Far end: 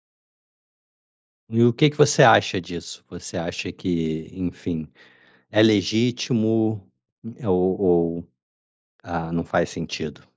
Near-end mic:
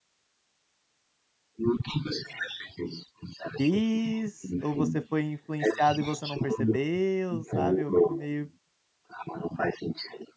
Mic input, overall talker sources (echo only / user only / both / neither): both